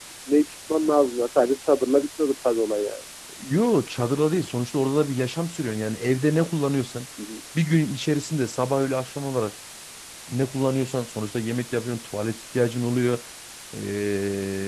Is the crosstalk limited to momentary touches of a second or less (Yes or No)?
Yes